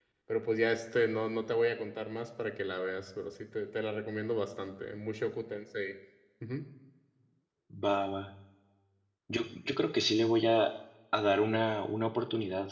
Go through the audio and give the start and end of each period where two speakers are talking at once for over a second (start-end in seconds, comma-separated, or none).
none